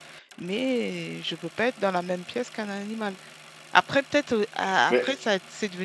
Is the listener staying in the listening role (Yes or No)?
Yes